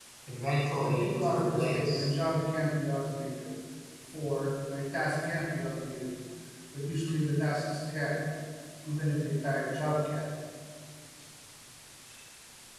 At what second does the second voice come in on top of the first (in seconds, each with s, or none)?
0.8 s